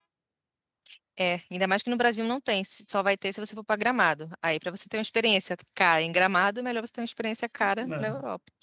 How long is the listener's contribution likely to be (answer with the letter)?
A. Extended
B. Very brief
A